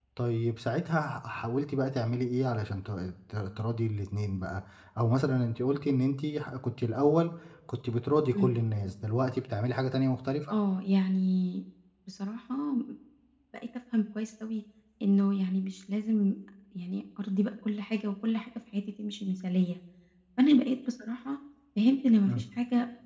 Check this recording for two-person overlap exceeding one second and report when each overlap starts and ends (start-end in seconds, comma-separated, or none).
none